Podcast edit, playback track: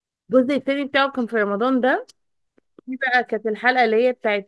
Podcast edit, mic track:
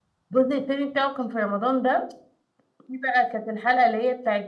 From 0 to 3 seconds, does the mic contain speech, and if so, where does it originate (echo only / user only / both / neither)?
echo only